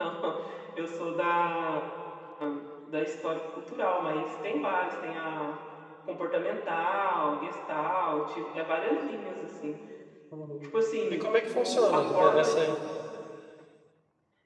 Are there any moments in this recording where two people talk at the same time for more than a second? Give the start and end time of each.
11.1-12.5

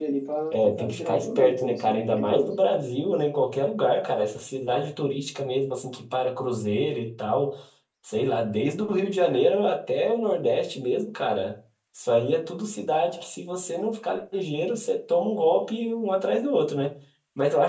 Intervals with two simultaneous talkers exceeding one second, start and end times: 0.5-2.5

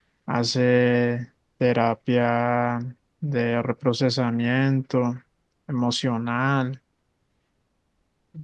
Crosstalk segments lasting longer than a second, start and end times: none

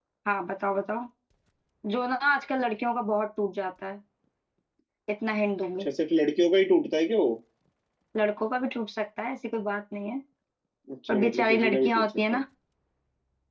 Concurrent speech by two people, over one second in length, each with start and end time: 11.1-12.4

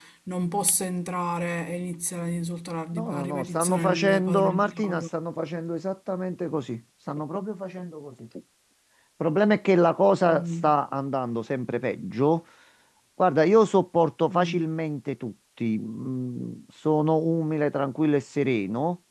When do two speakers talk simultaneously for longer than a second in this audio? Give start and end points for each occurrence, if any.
2.9-5.1

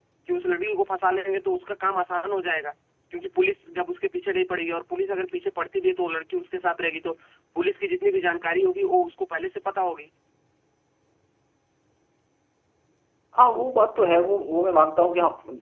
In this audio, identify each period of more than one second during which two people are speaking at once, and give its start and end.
none

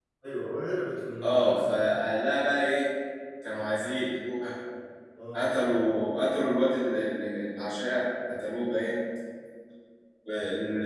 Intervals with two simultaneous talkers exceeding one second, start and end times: none

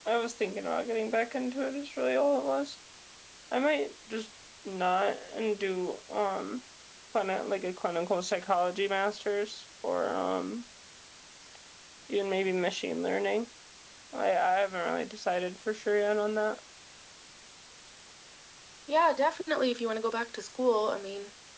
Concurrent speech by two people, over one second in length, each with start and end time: none

